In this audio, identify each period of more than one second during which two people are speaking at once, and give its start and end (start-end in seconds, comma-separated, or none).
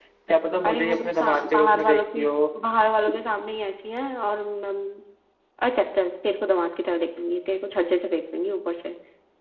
0.6-2.2